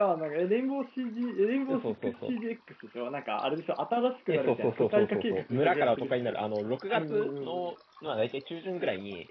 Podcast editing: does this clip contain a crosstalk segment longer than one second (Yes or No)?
Yes